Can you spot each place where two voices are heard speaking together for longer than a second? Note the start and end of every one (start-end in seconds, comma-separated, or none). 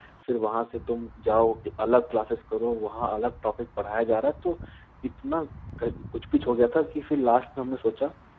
none